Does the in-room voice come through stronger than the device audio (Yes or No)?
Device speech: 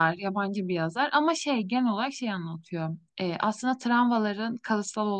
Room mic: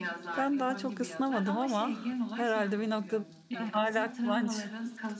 Yes